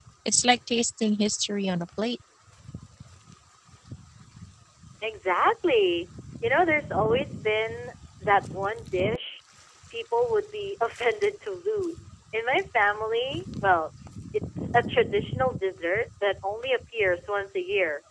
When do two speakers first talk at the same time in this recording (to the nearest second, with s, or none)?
none